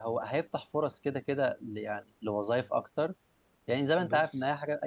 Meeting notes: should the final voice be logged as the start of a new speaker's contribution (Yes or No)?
No